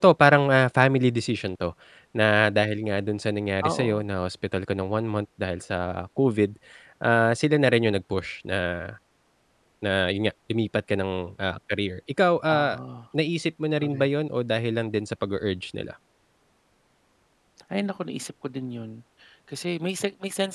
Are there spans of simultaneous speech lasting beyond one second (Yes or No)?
No